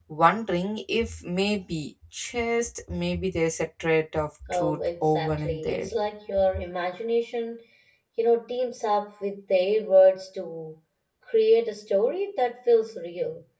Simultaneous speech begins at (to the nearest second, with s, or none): 4 s